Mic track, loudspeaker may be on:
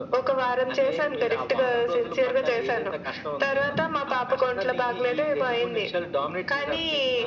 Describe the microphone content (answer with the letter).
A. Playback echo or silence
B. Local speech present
A